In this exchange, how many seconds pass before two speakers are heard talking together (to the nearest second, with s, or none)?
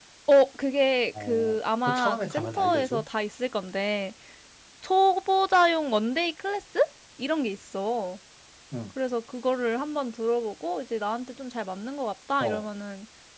1 s